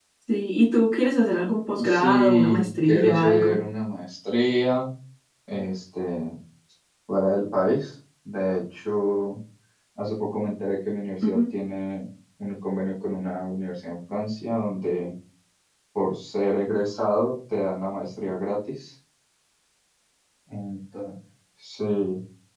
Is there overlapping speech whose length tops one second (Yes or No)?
Yes